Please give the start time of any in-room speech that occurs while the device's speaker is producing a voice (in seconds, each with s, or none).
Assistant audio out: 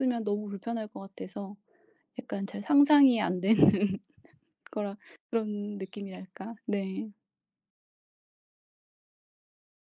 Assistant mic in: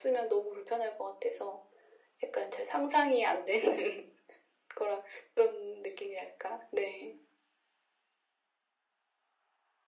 none